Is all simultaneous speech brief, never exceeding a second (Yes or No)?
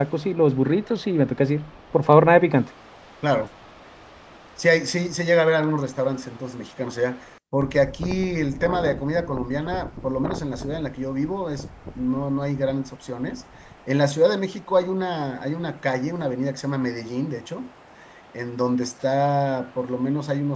Yes